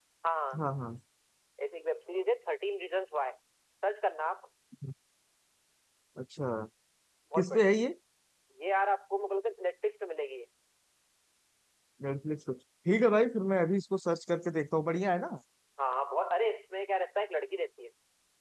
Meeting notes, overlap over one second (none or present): none